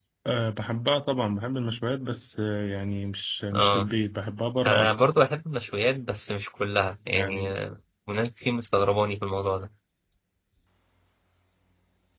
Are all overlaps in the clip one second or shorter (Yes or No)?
Yes